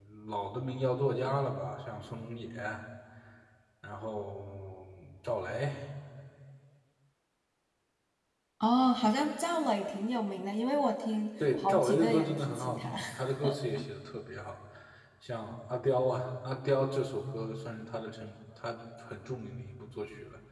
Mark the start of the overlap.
11.4 s

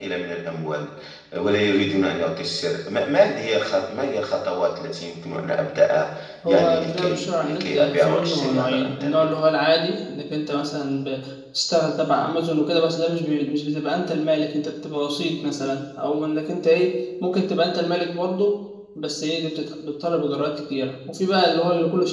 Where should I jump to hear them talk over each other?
6.5 s

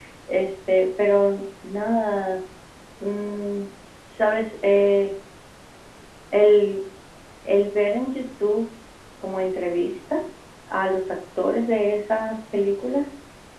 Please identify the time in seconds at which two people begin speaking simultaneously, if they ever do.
none

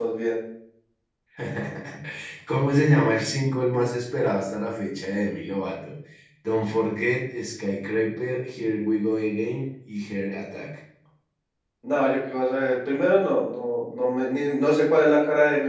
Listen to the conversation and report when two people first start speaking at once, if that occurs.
none

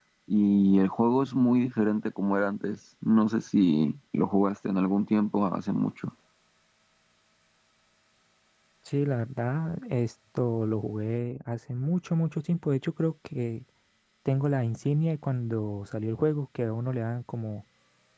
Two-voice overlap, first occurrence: none

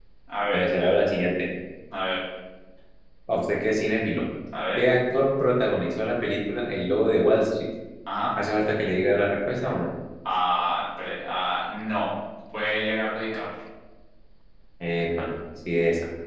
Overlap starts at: none

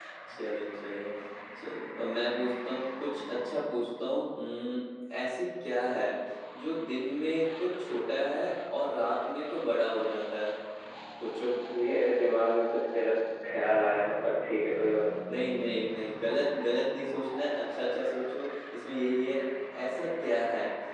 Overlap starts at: none

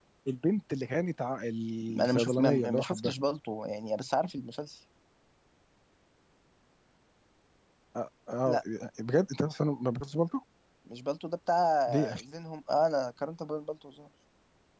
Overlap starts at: 1.9 s

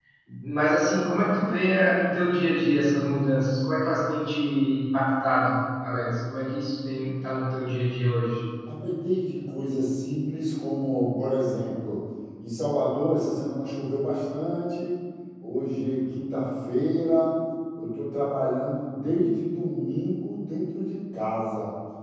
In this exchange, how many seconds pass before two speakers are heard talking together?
none

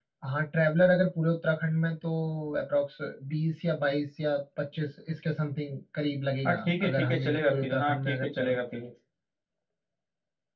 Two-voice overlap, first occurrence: 6.4 s

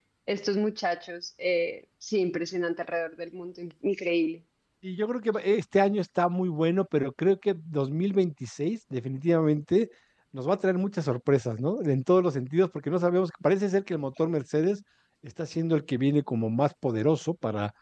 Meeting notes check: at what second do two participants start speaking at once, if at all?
none

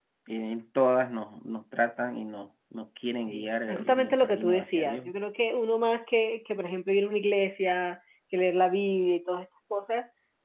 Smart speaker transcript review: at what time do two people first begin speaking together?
3.3 s

